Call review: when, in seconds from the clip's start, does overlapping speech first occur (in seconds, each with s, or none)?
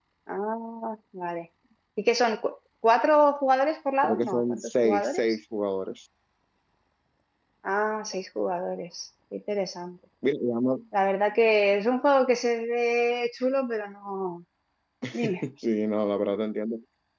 4.0 s